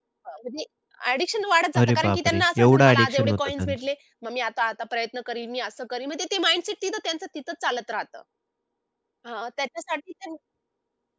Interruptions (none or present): present